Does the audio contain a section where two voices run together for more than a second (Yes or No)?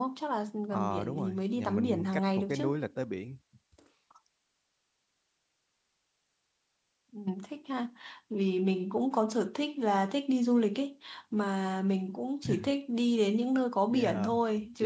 Yes